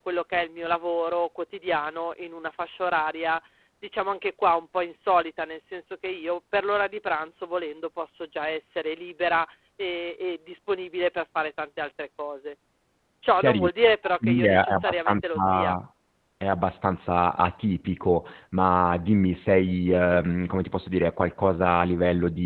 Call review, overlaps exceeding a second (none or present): present